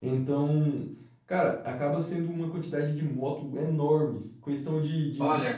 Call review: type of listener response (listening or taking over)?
listening